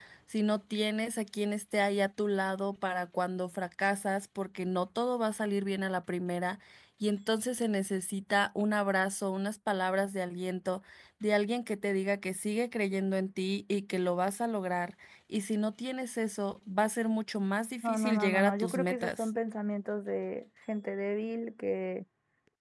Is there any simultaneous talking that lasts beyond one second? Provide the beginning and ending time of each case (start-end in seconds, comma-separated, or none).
17.8-19.3